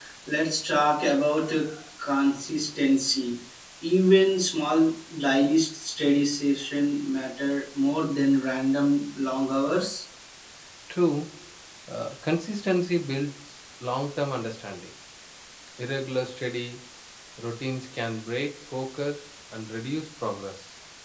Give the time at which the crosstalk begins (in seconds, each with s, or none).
none